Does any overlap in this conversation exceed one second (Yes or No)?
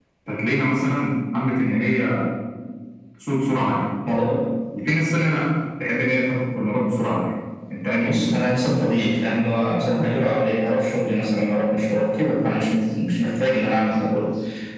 No